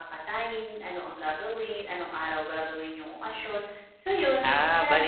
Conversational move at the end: taking over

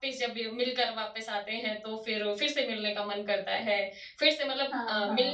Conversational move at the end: listening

